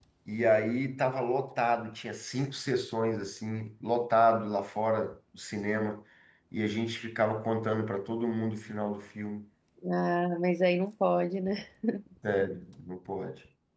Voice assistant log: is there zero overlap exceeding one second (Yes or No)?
Yes